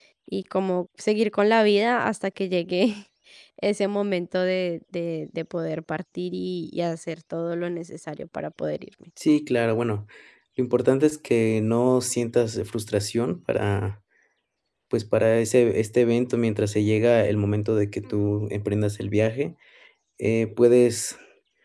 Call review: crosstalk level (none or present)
none